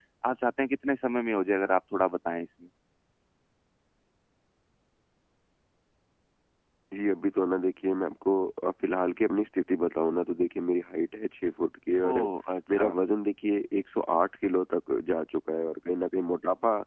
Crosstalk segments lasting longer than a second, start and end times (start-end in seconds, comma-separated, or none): none